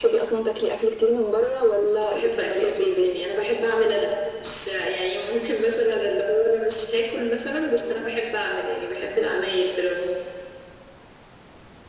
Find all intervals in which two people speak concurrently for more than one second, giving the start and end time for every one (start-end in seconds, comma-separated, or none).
1.8-3.1